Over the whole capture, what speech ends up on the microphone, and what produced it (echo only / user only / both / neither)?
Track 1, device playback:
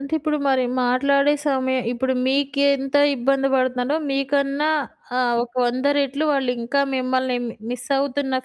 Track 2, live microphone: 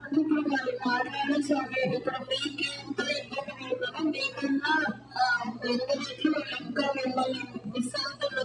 echo only